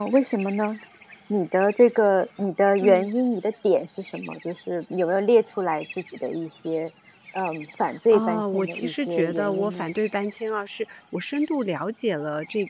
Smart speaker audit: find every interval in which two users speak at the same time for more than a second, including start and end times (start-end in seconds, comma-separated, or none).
8.1-9.9